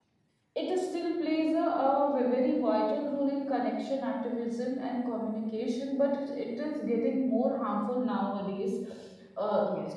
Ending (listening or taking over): listening